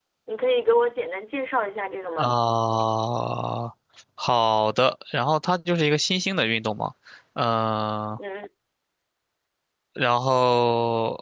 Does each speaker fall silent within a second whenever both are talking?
Yes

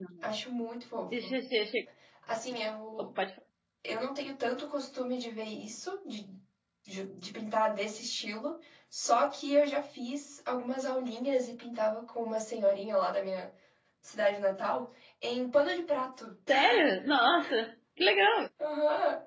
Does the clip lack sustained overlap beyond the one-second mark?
Yes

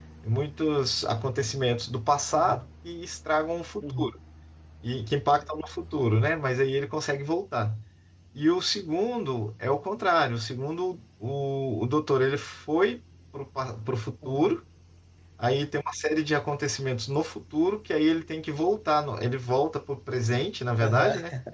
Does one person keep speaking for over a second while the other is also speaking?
No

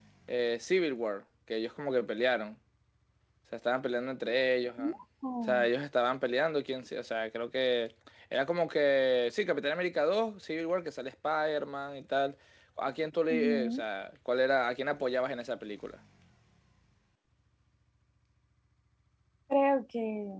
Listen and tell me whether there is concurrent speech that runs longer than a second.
No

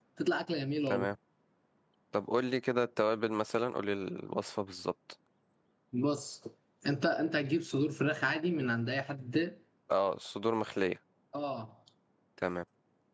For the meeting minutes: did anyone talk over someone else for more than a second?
No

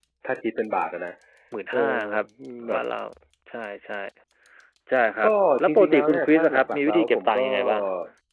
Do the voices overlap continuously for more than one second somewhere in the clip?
Yes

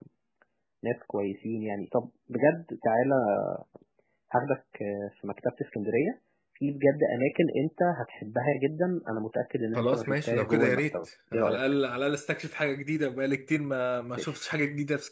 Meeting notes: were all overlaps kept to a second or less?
No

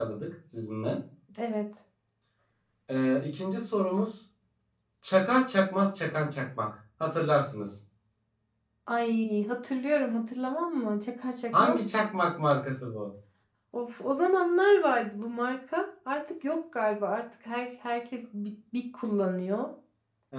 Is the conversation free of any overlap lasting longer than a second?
Yes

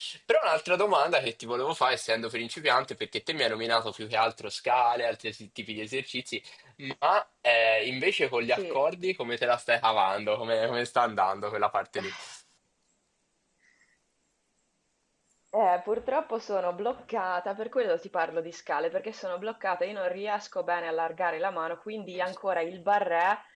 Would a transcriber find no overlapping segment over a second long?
Yes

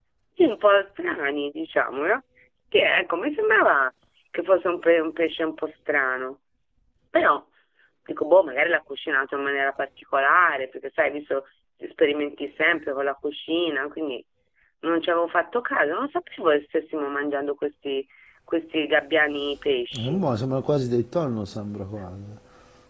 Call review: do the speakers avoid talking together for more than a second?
Yes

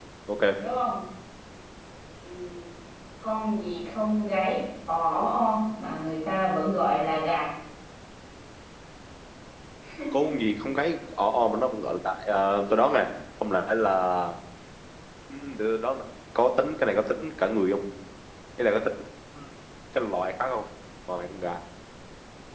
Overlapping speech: No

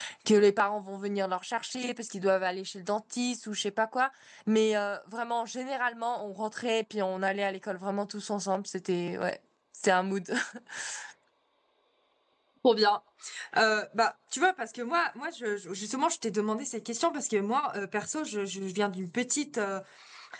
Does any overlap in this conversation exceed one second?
No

